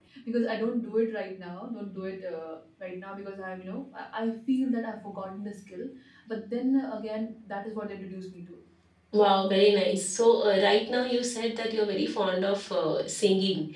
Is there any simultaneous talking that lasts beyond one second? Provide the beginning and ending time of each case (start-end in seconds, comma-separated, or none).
none